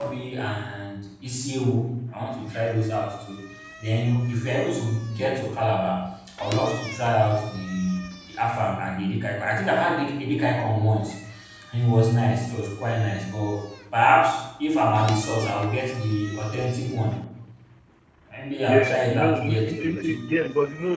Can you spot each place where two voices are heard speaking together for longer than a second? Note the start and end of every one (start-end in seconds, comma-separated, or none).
18.7-20.2